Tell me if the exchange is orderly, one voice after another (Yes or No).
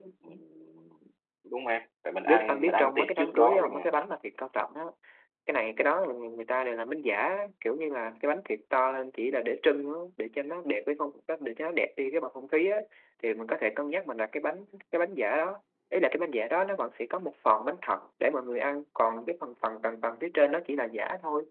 No